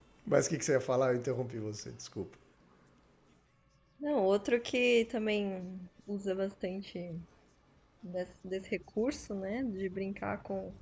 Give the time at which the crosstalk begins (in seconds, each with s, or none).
none